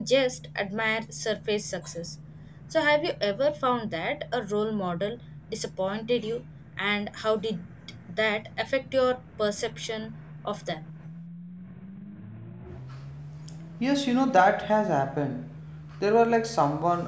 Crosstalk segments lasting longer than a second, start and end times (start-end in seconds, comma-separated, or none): none